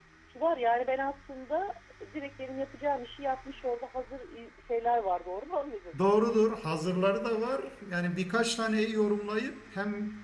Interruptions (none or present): none